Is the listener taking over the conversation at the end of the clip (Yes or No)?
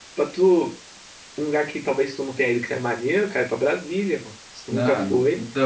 Yes